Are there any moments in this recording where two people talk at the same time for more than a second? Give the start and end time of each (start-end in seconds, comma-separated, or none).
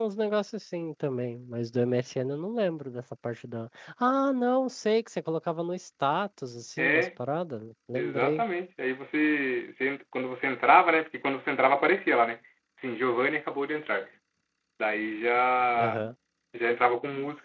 none